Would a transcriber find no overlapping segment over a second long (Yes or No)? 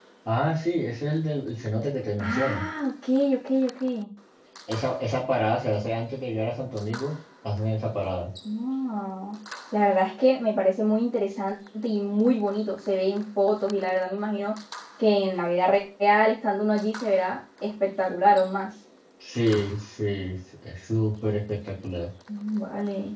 Yes